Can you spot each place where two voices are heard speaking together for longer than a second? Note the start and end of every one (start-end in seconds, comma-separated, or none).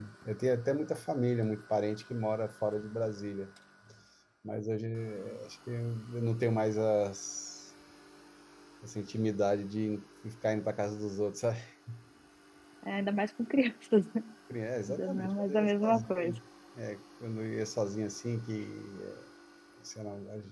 15.0-16.3